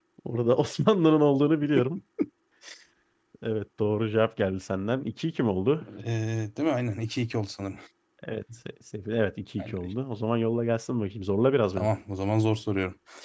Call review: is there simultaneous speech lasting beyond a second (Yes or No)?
No